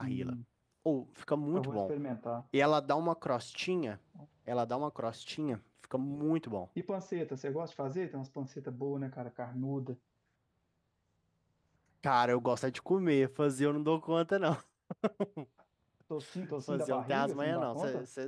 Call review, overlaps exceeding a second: present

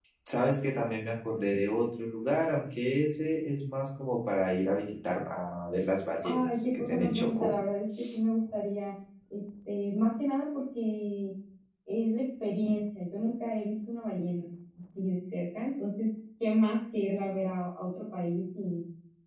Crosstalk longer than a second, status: present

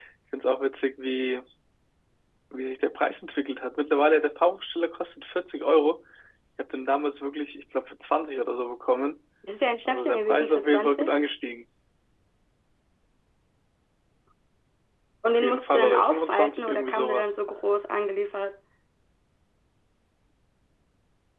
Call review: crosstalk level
present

